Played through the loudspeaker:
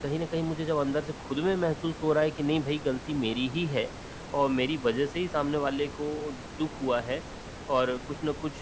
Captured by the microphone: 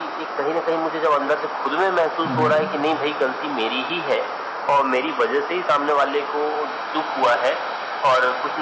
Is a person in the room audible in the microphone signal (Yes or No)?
Yes